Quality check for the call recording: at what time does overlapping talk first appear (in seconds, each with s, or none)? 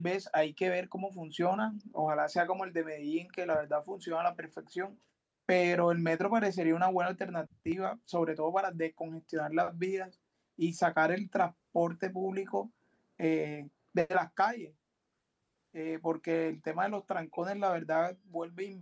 none